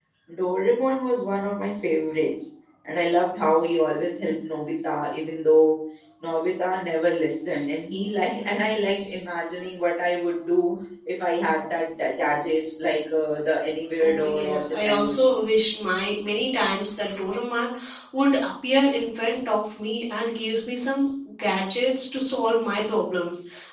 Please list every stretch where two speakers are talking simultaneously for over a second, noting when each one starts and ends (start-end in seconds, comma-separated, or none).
14.0-15.5